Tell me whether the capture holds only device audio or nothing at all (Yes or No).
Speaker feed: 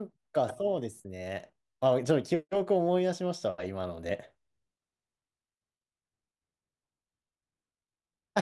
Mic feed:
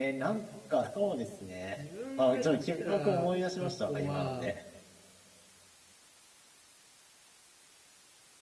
No